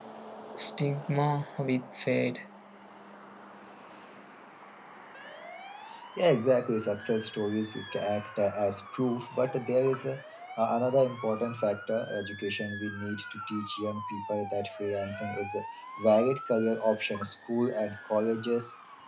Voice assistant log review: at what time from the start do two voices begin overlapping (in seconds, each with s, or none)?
none